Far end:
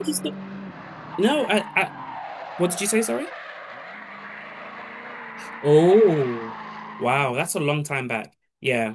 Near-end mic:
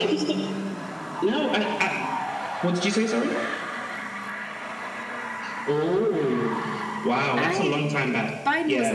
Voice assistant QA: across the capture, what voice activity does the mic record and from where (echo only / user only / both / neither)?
both